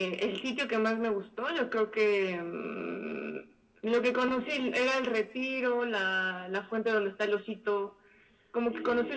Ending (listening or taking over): taking over